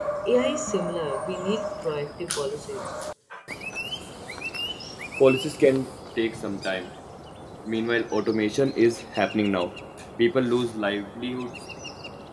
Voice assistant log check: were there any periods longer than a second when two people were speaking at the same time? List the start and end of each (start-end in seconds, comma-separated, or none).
none